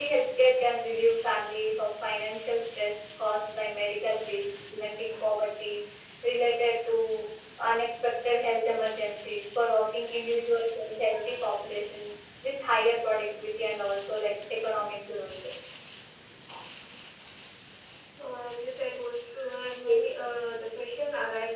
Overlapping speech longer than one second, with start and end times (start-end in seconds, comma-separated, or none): none